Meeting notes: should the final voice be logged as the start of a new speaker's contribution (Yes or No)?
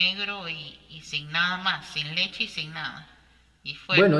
Yes